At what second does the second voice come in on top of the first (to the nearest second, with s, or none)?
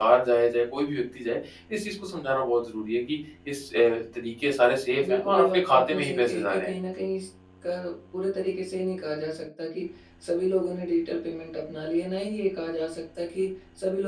5 s